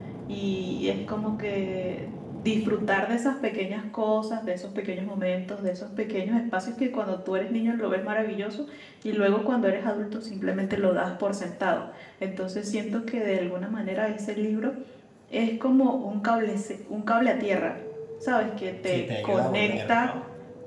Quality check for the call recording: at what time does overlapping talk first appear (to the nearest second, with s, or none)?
19 s